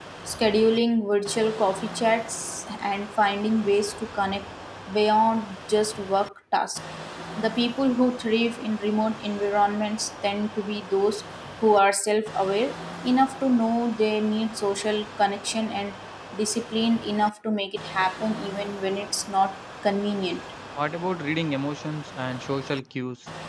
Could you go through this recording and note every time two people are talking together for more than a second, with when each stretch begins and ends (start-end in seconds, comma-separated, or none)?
none